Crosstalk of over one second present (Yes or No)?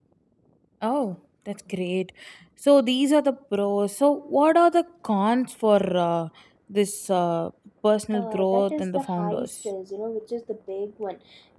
Yes